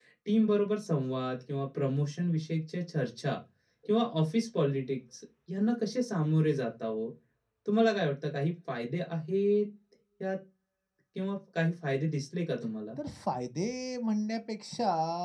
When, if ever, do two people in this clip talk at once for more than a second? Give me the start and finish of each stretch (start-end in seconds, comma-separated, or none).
none